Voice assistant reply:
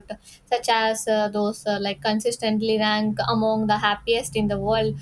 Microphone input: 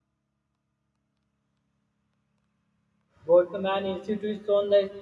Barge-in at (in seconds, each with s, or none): 3.2 s